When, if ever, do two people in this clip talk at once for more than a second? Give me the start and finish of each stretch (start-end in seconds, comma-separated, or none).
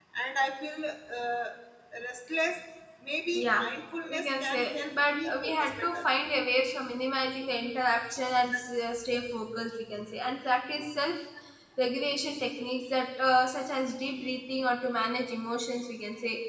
4.1-6.0